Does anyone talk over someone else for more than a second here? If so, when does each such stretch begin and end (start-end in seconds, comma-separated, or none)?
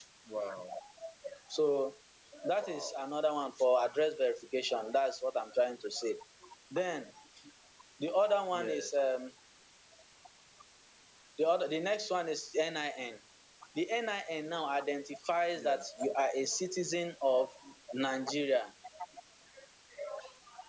none